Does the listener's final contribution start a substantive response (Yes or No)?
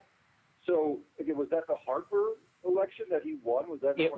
Yes